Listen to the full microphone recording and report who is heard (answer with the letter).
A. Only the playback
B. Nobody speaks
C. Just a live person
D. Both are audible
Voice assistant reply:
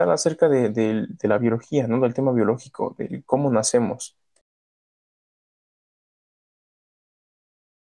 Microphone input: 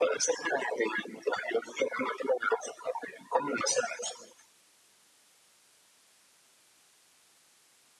A